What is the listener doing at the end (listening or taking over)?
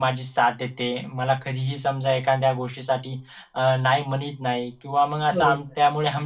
listening